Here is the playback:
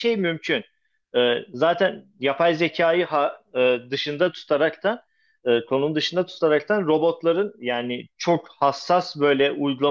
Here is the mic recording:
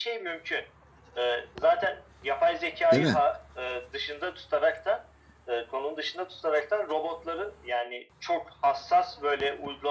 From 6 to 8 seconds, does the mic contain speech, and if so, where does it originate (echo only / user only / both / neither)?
echo only